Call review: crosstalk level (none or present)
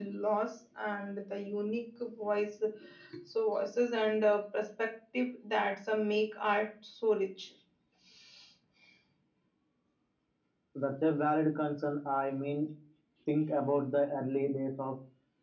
none